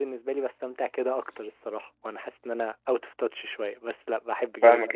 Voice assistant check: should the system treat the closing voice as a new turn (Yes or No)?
Yes